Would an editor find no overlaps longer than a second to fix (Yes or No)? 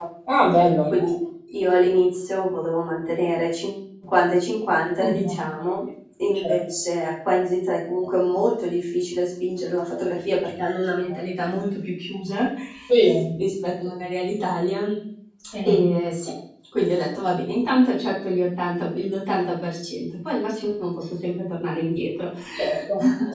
Yes